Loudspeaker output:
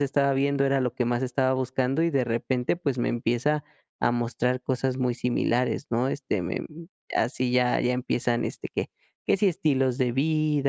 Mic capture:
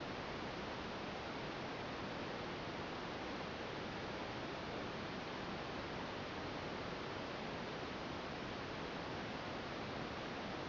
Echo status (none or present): none